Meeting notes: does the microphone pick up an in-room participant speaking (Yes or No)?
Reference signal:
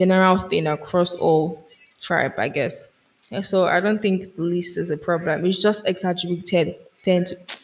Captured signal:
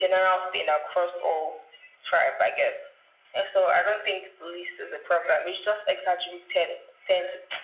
No